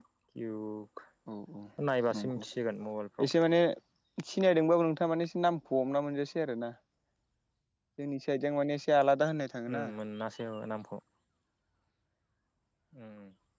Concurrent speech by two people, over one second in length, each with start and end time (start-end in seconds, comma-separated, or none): none